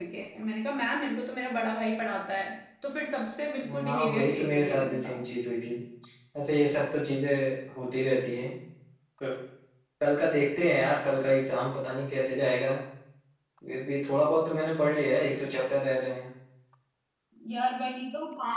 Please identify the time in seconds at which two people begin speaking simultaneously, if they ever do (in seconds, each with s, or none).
3.6 s